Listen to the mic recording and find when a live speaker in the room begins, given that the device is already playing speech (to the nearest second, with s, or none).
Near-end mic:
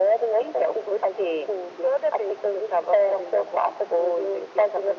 none